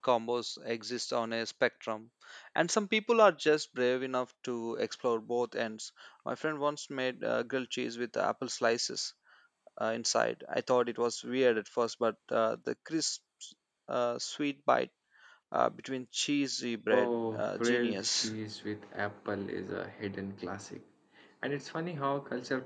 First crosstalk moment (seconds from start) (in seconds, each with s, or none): 16.9 s